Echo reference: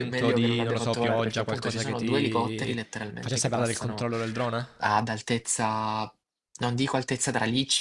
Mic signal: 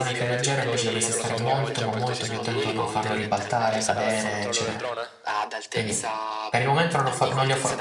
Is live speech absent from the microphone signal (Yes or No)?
No